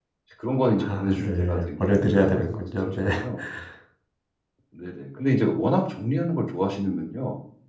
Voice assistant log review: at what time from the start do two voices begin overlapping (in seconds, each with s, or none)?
0.8 s